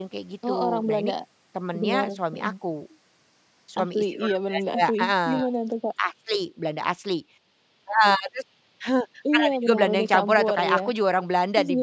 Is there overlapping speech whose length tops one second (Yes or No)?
Yes